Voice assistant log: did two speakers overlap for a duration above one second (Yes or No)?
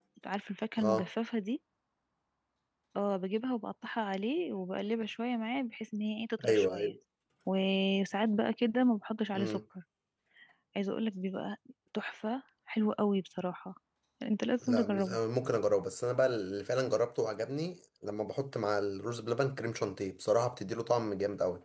No